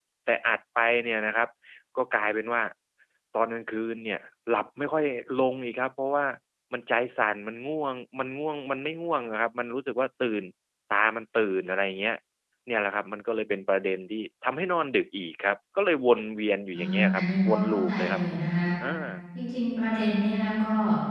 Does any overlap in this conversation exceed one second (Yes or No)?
Yes